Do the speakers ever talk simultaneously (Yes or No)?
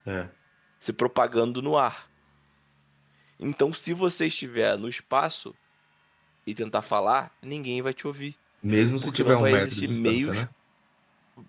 Yes